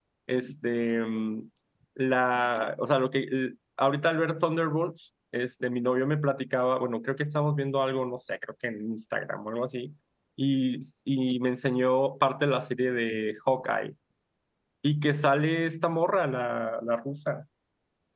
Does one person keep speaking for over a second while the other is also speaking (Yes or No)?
No